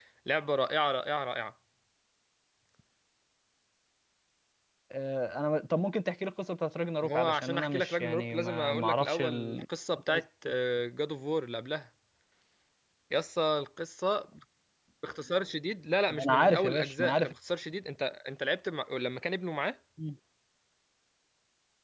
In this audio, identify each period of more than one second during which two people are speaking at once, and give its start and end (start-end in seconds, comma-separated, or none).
7.0-9.6, 16.1-17.3